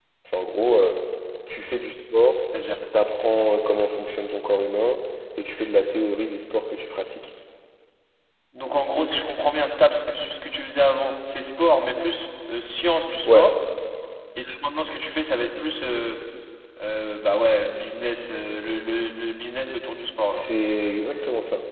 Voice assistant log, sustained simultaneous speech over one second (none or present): none